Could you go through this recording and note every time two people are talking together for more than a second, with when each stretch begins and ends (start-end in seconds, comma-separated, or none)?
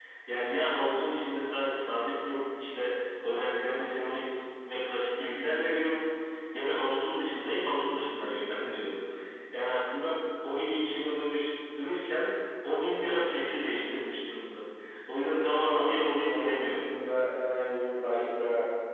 15.6-16.9